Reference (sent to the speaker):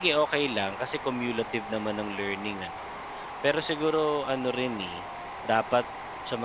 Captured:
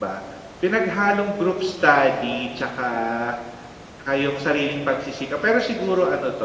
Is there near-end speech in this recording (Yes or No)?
Yes